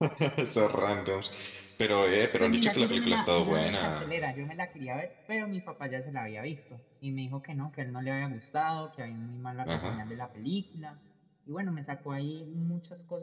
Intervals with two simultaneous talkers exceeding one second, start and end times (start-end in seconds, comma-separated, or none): 2.4-4.0